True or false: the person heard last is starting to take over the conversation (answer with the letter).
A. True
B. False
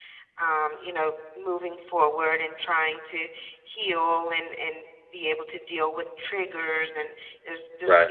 B